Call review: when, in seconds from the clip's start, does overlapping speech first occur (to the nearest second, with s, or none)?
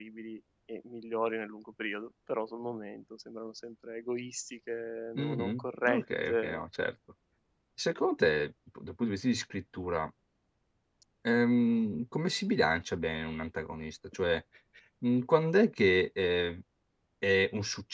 5 s